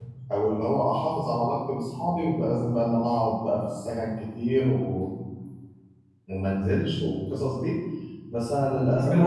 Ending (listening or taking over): taking over